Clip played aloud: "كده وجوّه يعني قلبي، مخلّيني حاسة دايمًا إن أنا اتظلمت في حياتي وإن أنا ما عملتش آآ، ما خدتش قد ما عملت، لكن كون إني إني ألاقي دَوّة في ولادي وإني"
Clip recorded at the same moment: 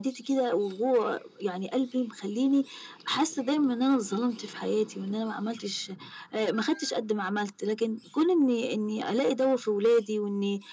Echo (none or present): present